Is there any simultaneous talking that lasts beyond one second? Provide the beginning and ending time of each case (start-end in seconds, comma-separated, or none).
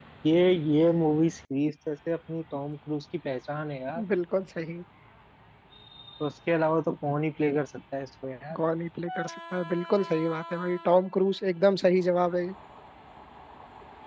none